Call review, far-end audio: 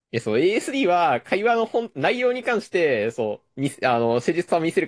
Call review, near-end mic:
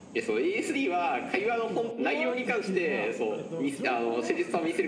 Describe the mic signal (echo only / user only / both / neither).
both